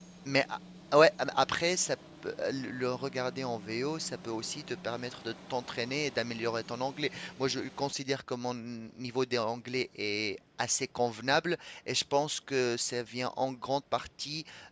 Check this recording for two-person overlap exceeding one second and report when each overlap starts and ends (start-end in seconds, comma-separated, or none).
none